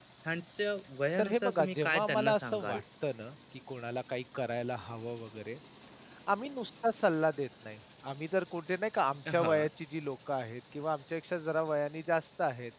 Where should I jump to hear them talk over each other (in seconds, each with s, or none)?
1.2 s